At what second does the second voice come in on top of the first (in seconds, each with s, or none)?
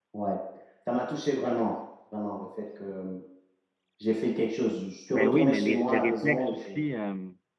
5.1 s